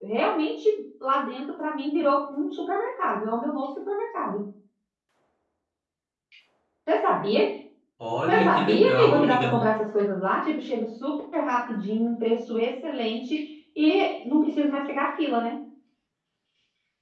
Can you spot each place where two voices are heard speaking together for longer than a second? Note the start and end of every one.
8.3-9.5

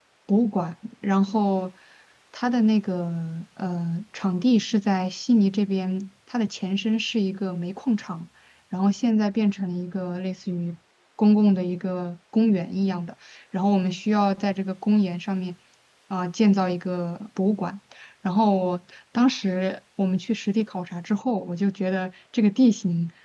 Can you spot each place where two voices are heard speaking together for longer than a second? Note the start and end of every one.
none

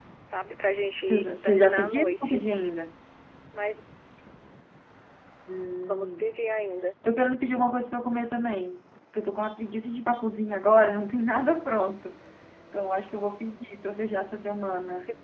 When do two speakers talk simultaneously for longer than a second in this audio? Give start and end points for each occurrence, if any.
1.1-2.4

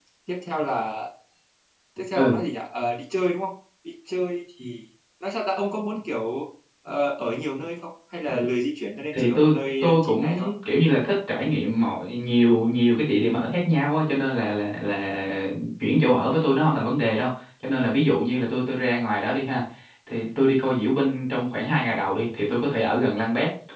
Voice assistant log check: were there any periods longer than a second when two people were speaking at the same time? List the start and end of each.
9.1-10.5

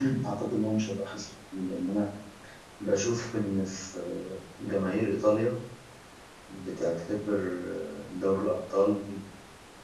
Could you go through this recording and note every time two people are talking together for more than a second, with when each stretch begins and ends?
none

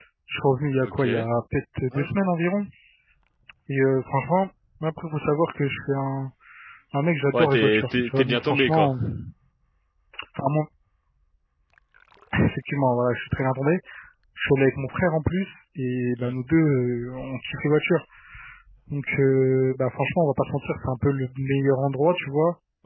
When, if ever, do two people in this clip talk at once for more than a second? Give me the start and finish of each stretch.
7.3-8.9

